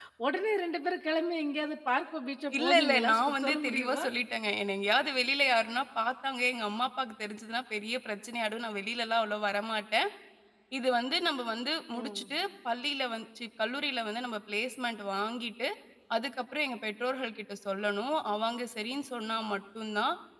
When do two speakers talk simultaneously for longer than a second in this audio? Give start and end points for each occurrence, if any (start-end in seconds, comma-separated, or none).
2.6-4.0